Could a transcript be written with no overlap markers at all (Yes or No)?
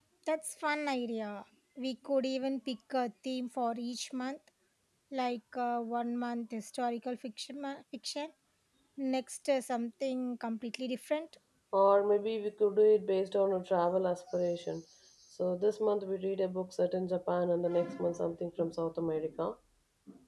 Yes